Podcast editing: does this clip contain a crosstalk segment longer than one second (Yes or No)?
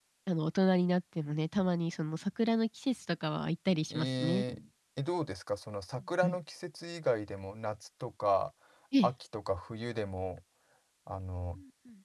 No